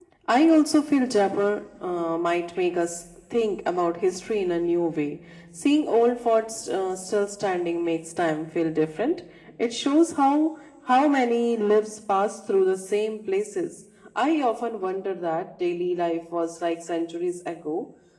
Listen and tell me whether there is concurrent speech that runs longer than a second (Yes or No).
No